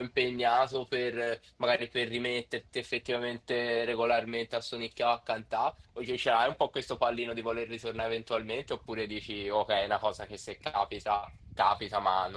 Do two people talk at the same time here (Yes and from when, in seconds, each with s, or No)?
No